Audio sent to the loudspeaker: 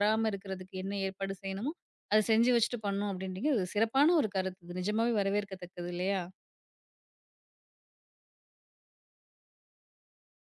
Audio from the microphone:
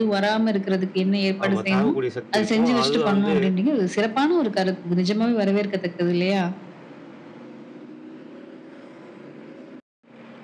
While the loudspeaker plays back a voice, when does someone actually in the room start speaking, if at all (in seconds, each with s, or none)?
1.4 s